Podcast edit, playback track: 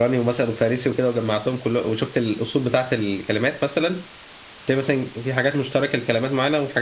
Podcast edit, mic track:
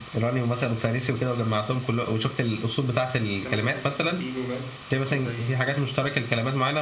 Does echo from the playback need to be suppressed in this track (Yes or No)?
Yes